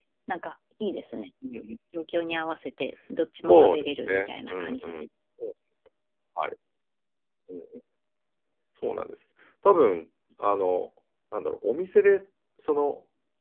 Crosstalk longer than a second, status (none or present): present